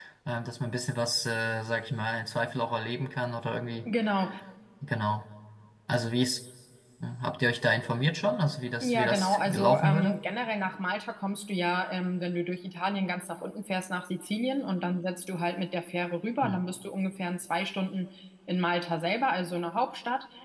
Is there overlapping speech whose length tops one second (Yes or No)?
Yes